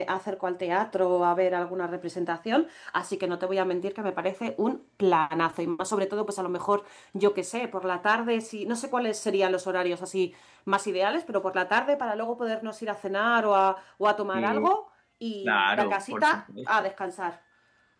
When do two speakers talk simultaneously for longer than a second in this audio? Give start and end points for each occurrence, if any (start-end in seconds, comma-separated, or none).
15.4-16.7